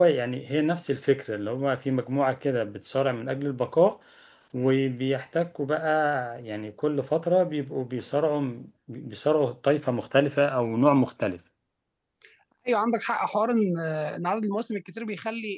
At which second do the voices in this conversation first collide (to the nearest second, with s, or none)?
none